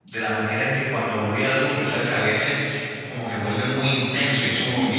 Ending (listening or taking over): listening